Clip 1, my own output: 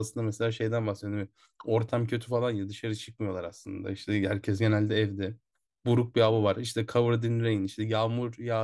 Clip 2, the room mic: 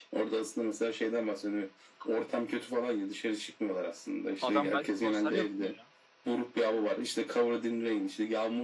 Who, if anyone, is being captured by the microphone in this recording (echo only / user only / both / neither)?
both